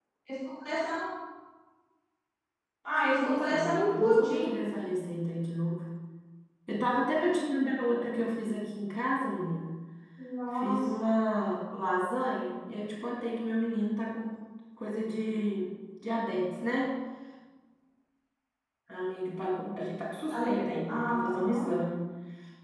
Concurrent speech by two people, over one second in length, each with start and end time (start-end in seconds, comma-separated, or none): 3.0-4.5, 20.3-21.7